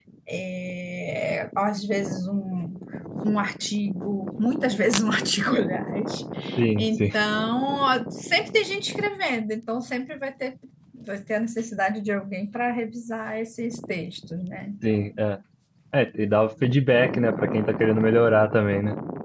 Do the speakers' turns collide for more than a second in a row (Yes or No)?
No